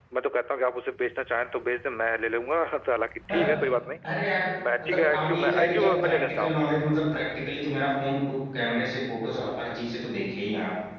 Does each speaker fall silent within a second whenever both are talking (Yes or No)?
No